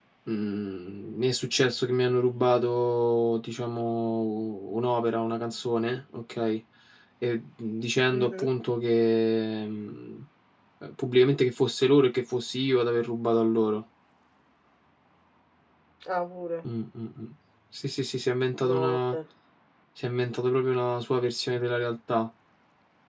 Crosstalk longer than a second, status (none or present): none